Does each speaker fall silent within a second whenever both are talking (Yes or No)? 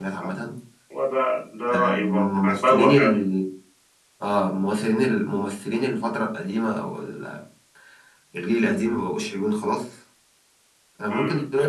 No